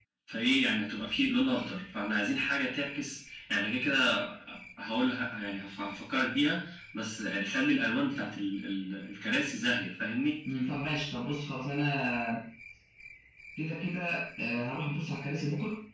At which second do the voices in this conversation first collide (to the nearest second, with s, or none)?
none